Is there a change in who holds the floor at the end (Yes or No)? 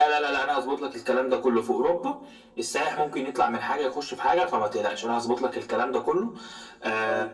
No